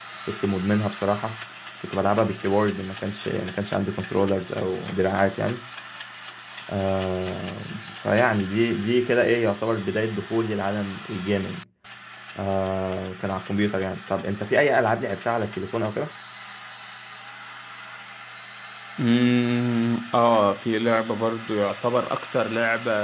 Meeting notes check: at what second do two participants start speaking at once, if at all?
none

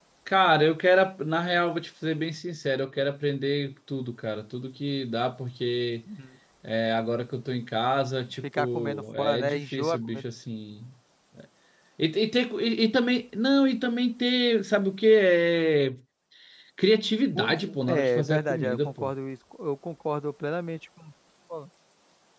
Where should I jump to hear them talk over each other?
8.4 s

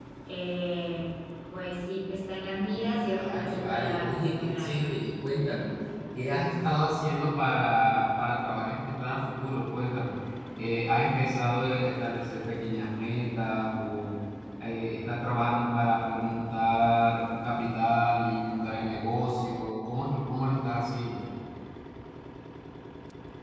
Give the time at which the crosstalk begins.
3.1 s

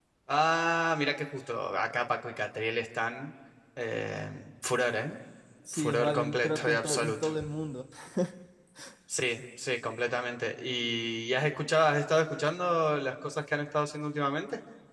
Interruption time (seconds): 5.7 s

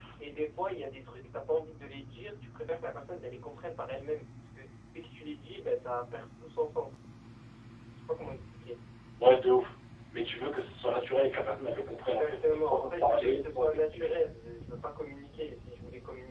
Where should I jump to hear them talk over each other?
12.1 s

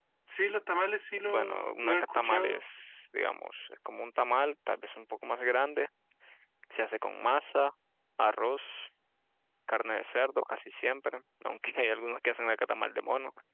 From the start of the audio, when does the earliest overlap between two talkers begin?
1.2 s

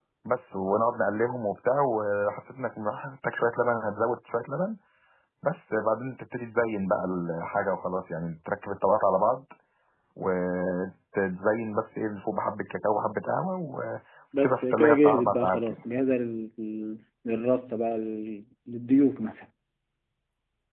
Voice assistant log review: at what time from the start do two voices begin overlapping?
14.3 s

